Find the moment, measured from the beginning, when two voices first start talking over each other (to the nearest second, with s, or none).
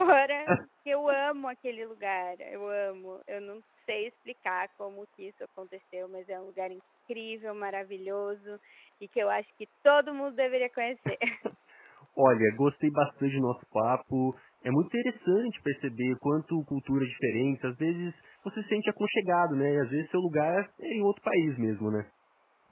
none